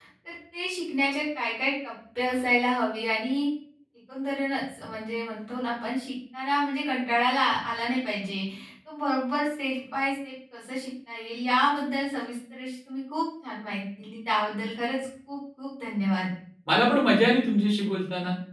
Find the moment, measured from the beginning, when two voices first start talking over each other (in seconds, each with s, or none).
none